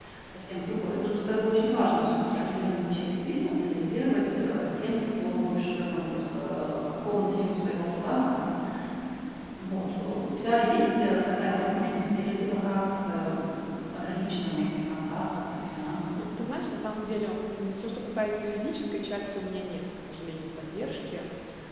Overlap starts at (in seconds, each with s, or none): none